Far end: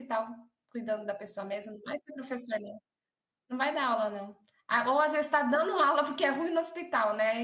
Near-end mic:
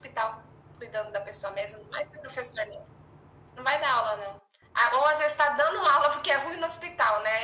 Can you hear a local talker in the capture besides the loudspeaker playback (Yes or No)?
No